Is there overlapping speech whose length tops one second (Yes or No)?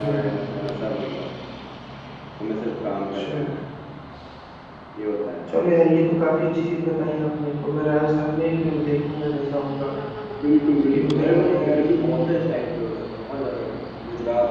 Yes